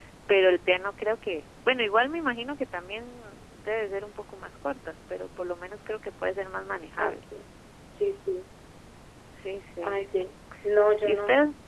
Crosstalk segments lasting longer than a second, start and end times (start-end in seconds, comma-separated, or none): none